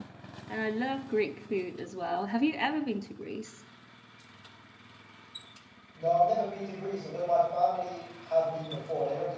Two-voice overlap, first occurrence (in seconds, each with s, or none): none